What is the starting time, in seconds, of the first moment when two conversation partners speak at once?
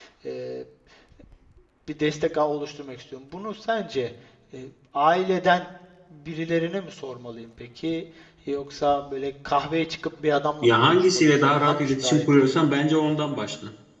10.6 s

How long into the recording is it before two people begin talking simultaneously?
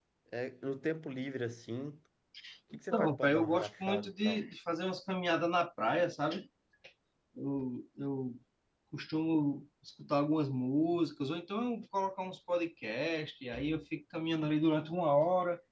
2.9 s

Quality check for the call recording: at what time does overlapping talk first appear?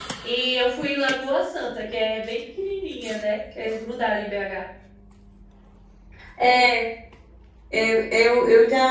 none

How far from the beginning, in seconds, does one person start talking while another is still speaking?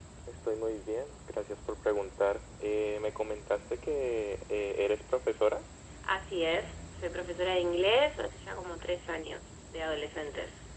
none

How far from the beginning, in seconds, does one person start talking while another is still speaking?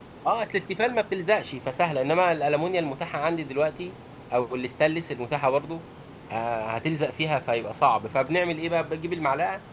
none

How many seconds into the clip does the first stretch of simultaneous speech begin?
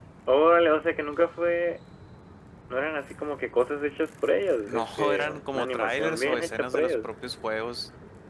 4.7 s

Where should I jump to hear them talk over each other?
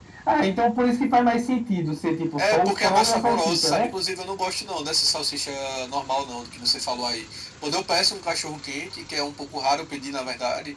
2.4 s

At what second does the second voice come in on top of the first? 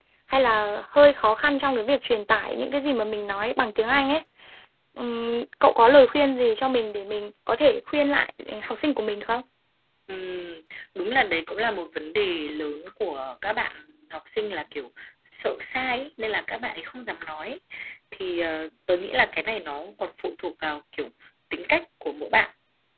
none

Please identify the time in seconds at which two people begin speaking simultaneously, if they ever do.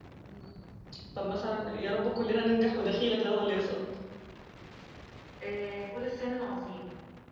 none

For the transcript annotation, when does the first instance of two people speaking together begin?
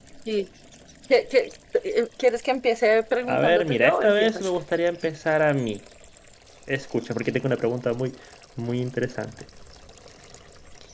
3.2 s

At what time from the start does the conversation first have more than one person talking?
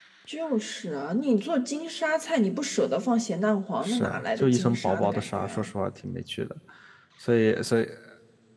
3.8 s

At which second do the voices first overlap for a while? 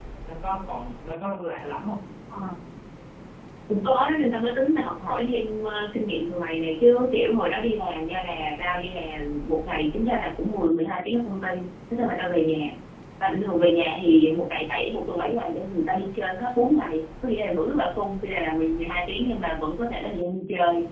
none

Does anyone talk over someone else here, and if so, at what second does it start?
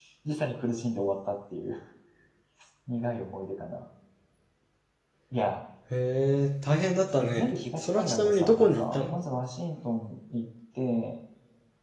7.2 s

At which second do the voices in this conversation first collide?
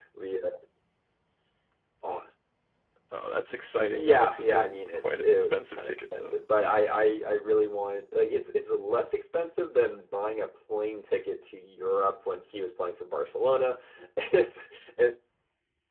4.0 s

